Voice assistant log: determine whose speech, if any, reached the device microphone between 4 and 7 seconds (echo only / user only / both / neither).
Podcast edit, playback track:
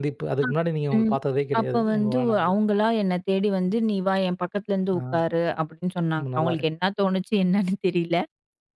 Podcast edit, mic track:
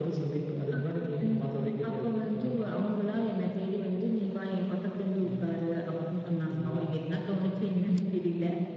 echo only